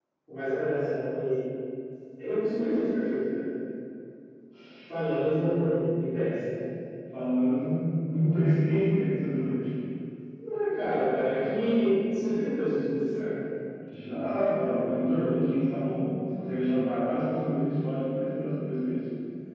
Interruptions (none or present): none